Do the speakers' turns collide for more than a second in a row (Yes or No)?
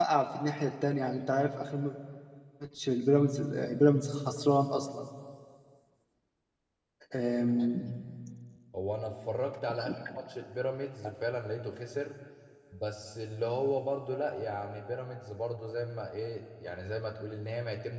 No